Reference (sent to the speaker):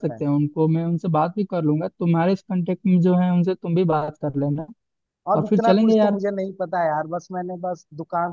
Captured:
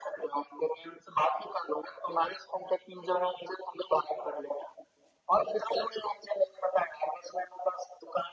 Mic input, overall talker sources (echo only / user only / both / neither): echo only